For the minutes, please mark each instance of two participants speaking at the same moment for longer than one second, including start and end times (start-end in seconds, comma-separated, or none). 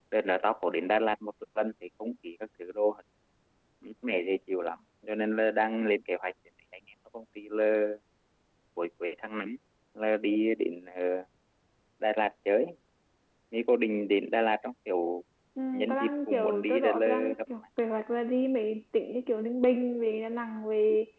15.7-17.4